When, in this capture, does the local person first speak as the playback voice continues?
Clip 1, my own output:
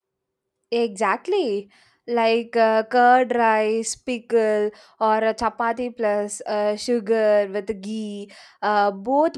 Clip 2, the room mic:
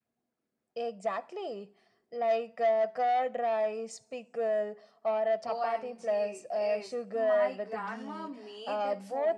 5.5 s

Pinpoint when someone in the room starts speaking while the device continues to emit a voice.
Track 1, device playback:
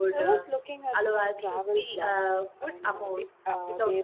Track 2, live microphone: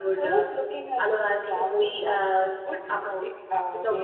none

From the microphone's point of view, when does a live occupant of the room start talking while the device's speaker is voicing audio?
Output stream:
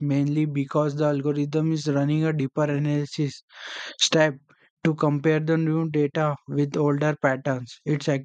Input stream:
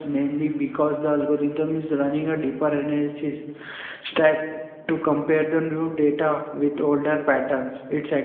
none

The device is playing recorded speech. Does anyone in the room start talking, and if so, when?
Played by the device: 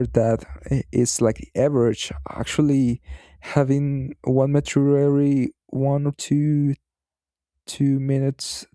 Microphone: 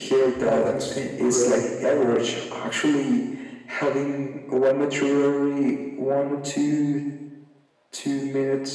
0.4 s

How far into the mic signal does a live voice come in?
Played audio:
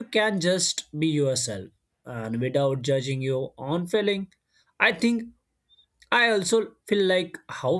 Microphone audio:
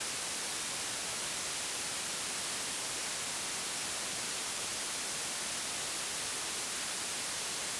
none

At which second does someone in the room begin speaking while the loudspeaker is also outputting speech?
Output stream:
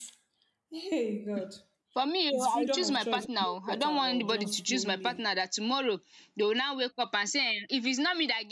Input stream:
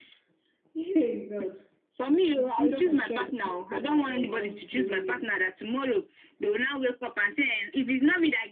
none

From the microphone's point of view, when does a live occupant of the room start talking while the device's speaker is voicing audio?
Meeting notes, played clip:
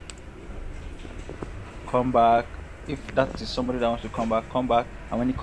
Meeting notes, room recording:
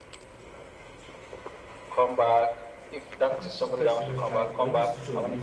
3.3 s

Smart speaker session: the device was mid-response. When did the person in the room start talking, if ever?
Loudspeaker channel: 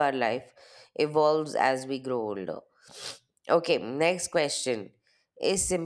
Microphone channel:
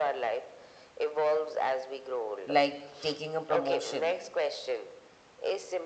2.4 s

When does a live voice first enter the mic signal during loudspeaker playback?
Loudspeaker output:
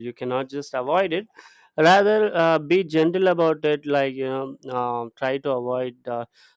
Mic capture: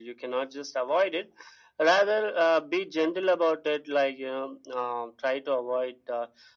none

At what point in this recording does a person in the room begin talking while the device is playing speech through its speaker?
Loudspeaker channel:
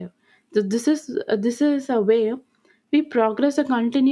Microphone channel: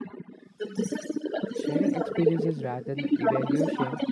1.5 s

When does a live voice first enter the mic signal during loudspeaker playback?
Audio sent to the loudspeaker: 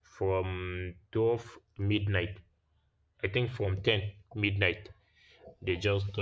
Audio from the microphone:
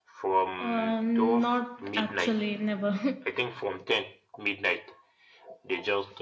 0.6 s

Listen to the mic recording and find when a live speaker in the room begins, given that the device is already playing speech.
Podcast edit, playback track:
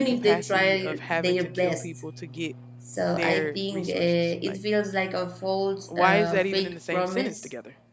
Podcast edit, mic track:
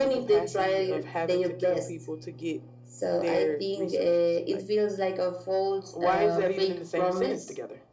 none

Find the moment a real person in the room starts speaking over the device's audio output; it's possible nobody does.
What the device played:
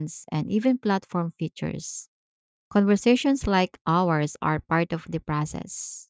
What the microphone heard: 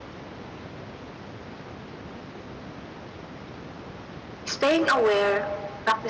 4.5 s

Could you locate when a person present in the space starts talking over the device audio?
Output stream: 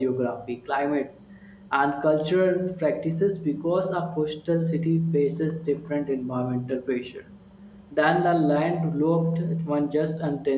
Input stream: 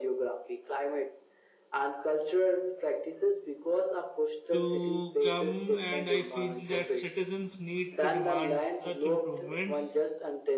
4.5 s

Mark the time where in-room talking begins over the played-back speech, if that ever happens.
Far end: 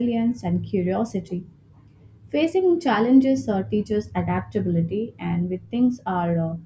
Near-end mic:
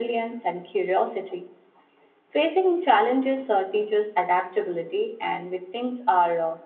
none

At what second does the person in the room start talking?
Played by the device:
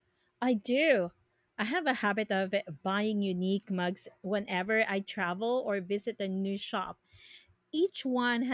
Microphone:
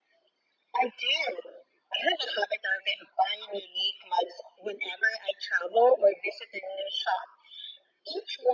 none

